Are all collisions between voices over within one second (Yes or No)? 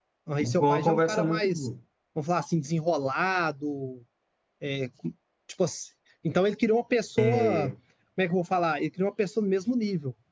No